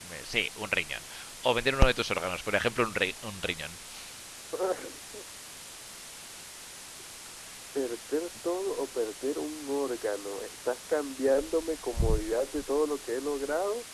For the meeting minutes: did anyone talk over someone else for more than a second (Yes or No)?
No